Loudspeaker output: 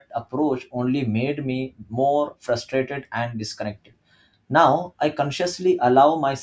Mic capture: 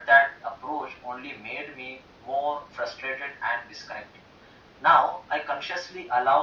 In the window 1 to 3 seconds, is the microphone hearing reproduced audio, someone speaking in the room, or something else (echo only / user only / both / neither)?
echo only